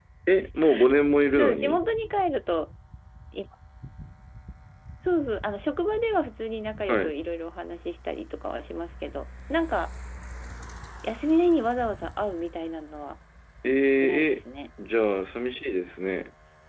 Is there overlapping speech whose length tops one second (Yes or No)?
No